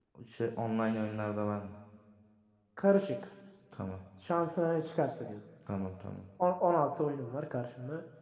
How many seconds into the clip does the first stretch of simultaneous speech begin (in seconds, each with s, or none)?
none